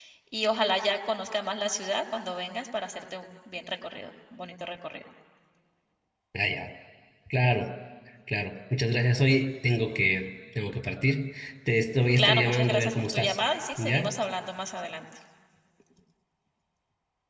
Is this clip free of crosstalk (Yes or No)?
No